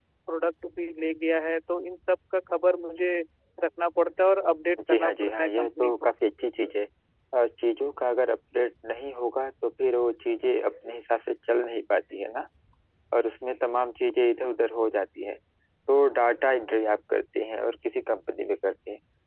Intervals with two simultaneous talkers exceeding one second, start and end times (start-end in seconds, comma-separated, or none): 4.9-6.1